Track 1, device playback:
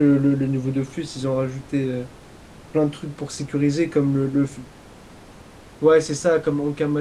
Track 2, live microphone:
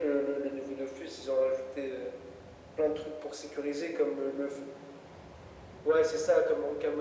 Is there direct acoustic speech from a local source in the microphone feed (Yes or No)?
No